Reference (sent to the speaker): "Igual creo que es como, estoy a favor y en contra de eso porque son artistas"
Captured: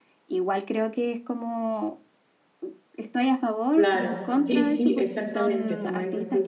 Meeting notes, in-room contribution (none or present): present